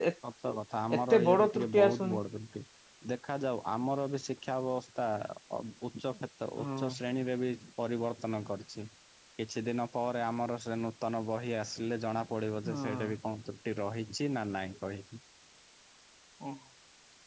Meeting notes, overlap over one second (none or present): present